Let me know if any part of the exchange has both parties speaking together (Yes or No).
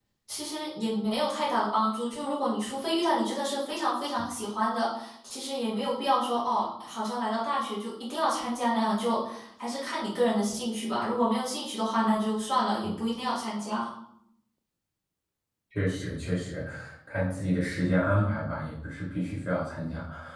No